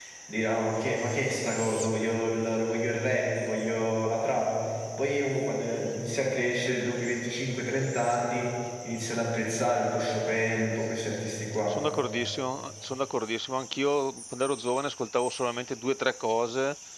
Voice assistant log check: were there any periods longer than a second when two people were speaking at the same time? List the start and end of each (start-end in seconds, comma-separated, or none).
none